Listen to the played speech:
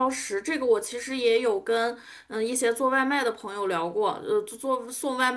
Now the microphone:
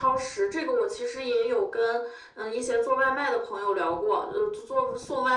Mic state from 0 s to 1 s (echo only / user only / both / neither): echo only